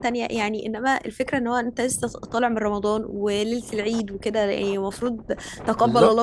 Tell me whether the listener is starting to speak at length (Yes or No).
No